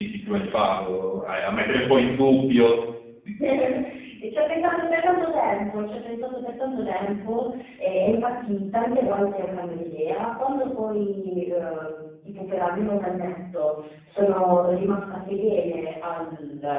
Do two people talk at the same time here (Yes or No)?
No